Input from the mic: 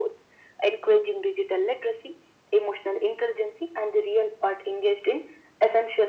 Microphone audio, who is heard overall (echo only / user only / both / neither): echo only